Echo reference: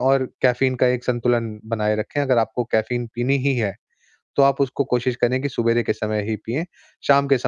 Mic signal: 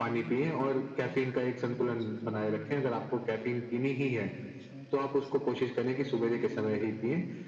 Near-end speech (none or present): present